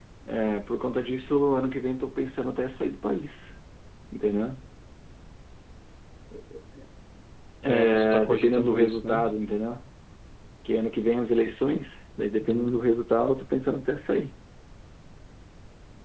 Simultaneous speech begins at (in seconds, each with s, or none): 7.7 s